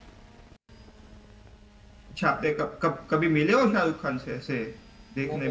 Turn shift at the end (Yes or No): Yes